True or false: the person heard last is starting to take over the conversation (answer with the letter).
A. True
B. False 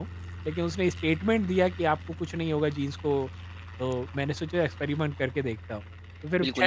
A